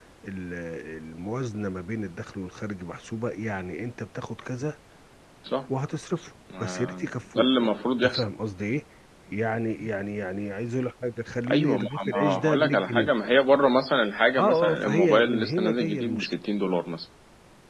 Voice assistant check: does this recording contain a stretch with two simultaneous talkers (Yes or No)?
Yes